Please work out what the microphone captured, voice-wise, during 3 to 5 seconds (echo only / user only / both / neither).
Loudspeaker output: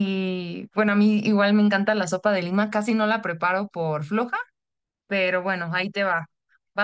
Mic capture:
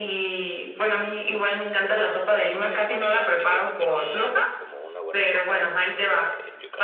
both